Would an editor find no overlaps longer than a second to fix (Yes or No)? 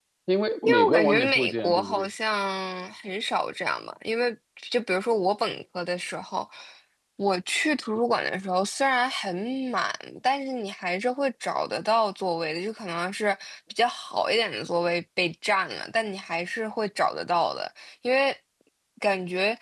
No